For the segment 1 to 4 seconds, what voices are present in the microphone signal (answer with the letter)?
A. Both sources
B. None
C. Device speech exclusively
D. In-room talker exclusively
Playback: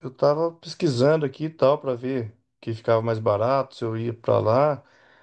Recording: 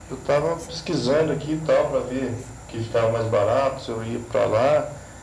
C